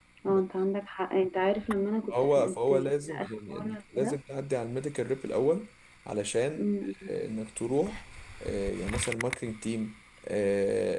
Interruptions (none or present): present